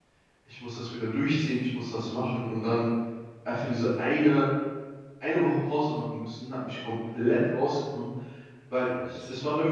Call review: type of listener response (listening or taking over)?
listening